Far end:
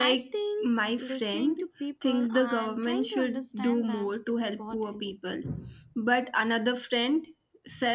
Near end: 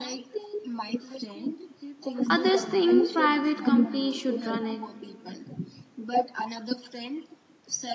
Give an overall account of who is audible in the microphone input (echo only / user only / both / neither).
both